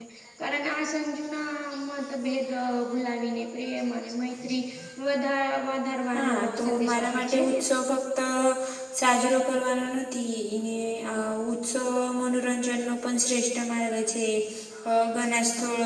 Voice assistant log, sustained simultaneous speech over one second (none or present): present